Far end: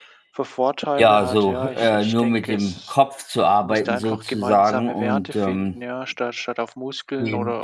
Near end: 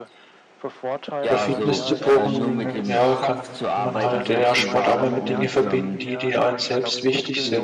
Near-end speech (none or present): present